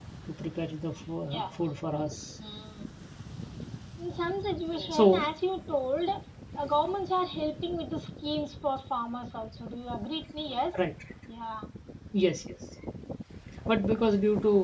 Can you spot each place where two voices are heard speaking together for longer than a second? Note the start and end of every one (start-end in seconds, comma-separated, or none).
none